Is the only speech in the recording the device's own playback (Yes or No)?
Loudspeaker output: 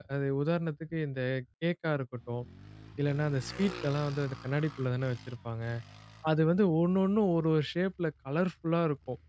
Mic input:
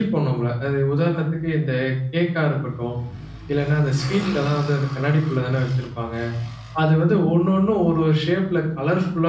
Yes